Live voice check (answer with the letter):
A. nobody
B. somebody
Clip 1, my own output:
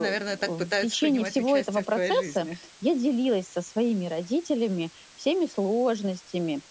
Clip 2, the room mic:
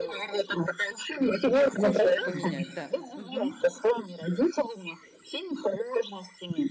B